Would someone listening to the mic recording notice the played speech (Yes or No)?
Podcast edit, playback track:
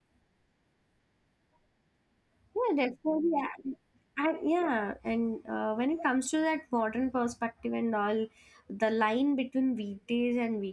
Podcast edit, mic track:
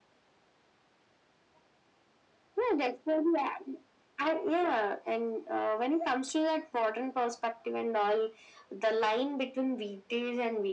Yes